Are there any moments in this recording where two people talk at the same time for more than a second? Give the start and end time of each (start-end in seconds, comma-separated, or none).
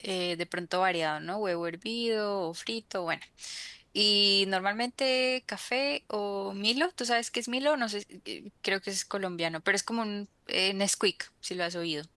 none